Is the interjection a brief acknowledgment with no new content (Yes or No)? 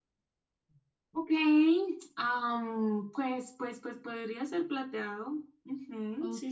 No